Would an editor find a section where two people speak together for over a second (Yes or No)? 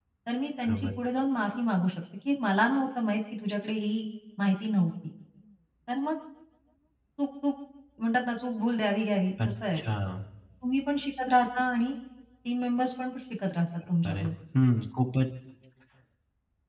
No